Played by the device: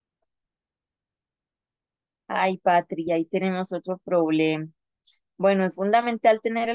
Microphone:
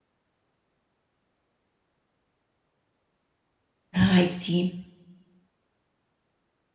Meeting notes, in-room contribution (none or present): present